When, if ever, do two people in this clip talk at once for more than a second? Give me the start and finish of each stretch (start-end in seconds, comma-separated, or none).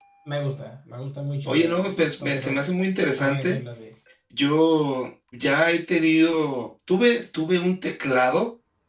1.4-2.7